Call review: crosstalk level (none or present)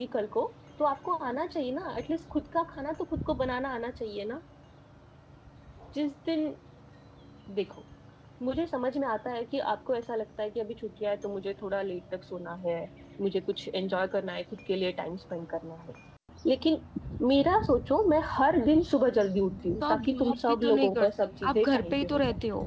present